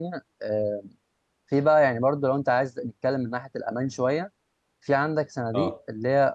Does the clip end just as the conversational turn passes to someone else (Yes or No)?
No